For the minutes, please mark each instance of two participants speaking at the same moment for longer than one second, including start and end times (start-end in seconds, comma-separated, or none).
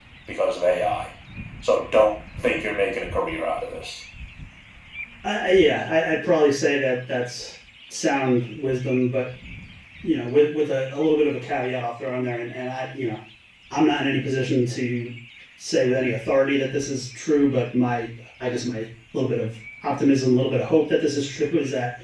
none